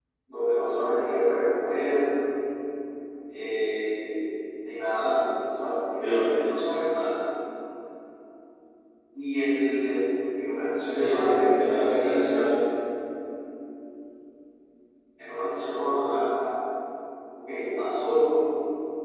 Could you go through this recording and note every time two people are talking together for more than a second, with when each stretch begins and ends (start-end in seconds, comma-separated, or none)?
10.9-12.5